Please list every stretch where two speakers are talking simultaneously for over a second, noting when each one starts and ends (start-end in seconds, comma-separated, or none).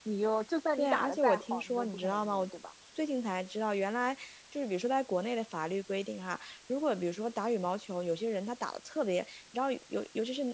0.8-2.5